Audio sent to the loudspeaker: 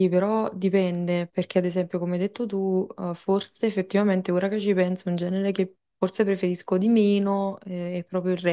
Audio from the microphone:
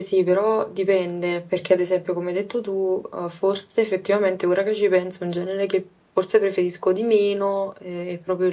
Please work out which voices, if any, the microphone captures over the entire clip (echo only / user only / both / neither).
echo only